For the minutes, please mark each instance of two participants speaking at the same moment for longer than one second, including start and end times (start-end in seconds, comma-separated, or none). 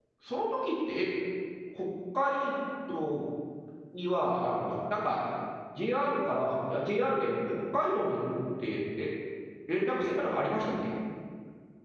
none